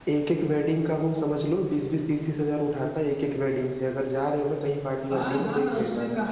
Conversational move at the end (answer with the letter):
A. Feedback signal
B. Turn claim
B